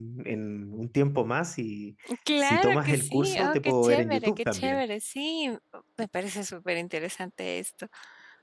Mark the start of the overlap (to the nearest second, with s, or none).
2 s